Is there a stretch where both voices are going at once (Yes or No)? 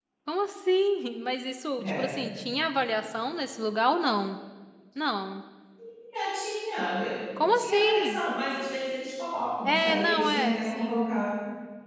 Yes